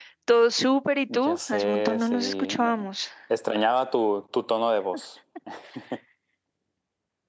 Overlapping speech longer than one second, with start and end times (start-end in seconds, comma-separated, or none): 1.1-2.9